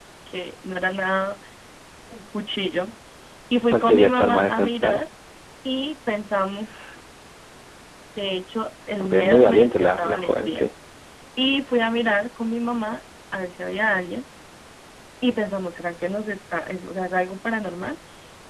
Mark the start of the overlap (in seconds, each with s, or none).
3.7 s